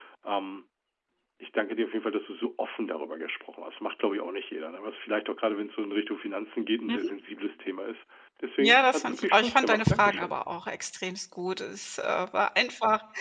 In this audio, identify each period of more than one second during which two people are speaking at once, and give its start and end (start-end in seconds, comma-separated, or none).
8.6-10.4